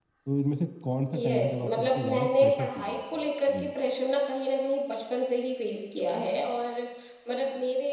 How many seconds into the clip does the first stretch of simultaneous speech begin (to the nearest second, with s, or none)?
1 s